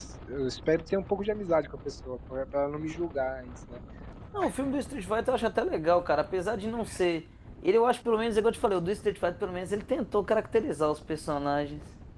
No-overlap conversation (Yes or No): Yes